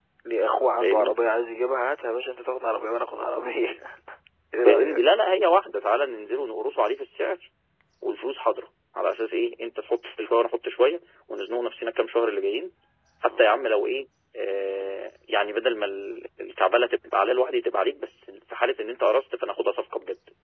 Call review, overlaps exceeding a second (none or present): none